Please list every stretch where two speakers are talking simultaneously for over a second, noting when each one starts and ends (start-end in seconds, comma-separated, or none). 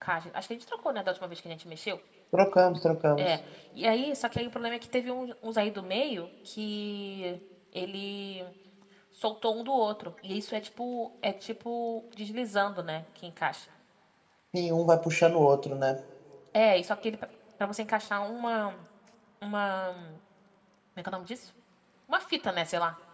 none